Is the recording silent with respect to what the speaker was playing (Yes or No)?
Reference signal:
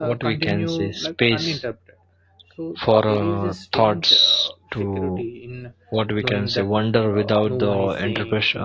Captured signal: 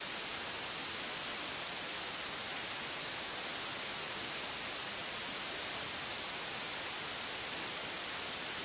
Yes